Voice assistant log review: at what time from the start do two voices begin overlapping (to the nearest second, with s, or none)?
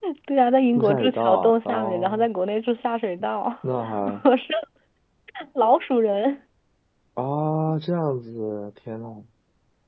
1 s